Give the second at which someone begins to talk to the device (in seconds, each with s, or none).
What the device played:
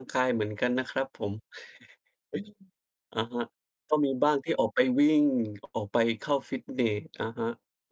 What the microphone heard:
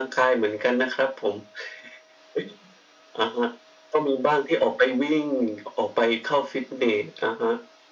none